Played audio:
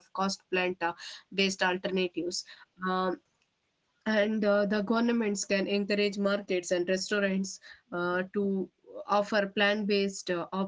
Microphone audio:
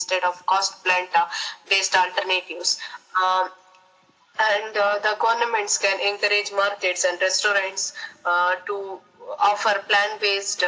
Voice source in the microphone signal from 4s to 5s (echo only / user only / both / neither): echo only